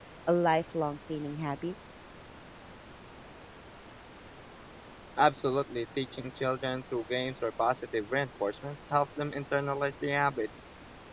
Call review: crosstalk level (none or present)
none